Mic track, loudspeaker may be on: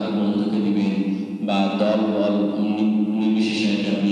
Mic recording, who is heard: echo only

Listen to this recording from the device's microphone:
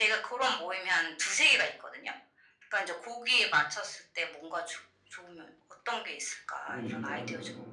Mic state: both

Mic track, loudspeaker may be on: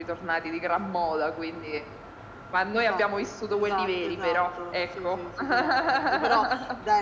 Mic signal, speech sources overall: both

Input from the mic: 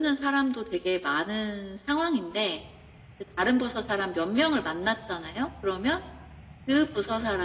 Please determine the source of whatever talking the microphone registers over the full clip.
echo only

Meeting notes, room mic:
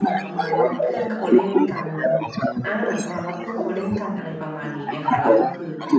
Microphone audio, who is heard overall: both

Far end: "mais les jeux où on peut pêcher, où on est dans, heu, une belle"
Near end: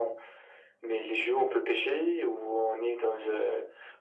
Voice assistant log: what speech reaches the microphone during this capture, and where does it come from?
echo only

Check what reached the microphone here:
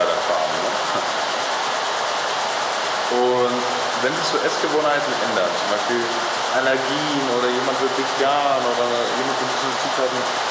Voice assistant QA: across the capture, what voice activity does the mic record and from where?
echo only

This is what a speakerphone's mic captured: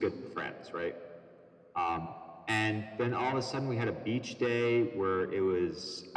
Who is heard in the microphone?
echo only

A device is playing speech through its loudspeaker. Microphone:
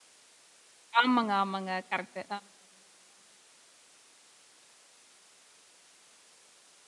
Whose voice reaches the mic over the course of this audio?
user only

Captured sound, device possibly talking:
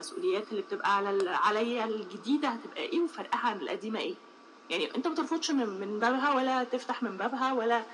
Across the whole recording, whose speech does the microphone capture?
echo only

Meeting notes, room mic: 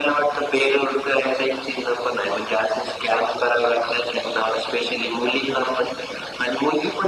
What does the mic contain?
echo only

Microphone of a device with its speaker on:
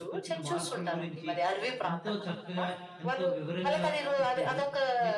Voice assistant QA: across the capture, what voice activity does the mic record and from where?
both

